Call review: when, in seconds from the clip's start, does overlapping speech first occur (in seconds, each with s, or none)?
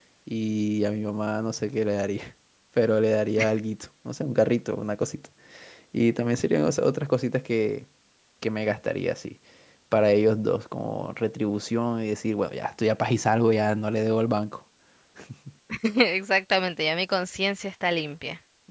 none